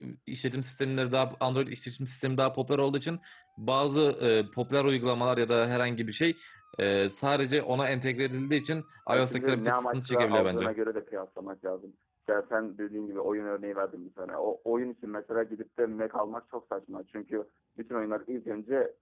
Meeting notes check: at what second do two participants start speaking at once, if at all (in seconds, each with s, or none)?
9.1 s